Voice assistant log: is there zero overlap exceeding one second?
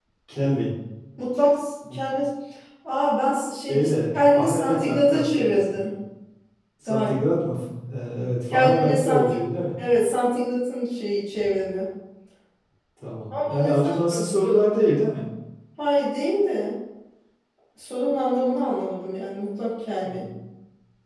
No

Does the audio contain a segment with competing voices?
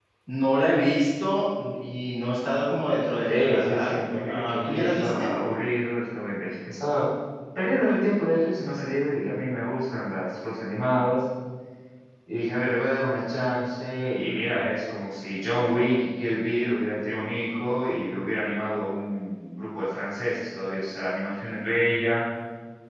Yes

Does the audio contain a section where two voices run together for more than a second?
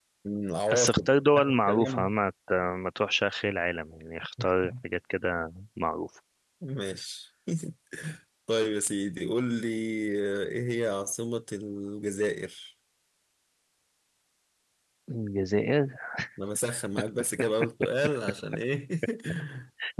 Yes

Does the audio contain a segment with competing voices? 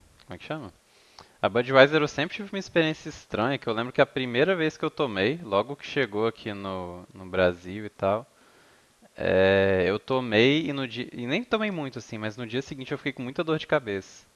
No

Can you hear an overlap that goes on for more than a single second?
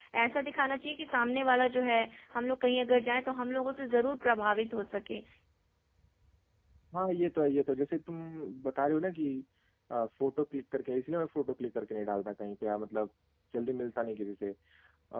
No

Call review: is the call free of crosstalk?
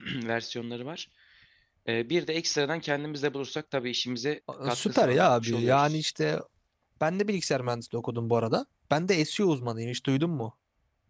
No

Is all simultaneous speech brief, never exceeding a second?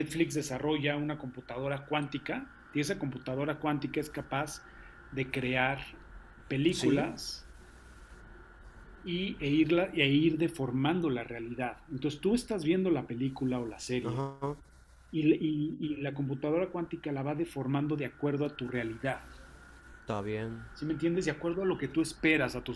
Yes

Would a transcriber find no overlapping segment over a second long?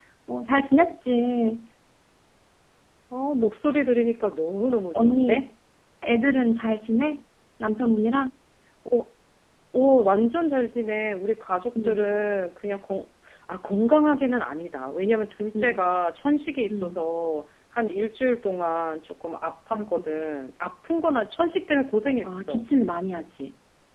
Yes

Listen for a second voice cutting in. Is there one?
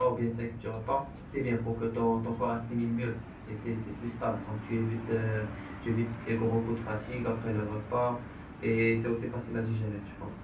No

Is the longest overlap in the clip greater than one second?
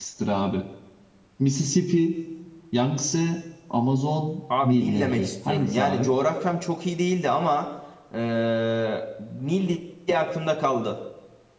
Yes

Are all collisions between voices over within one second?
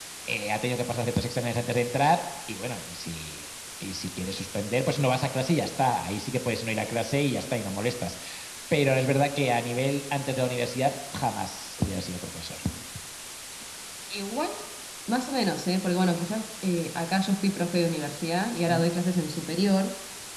Yes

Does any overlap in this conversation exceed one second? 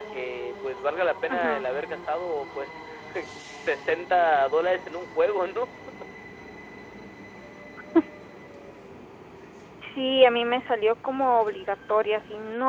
No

